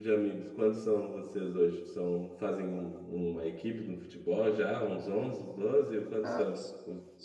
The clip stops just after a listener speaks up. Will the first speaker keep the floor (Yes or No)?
No